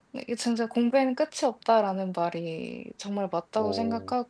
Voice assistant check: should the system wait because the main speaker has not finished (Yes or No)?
Yes